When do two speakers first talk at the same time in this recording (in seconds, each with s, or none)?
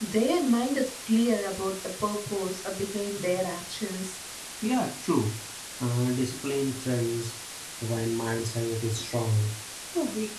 none